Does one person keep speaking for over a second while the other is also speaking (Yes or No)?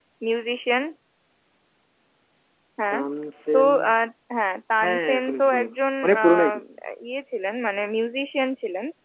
Yes